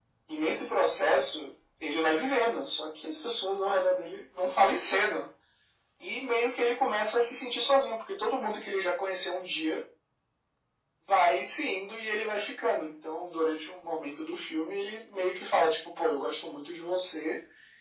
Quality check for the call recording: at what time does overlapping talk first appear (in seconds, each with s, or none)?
none